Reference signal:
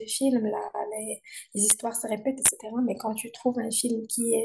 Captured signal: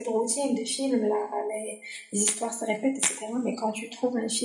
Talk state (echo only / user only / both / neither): echo only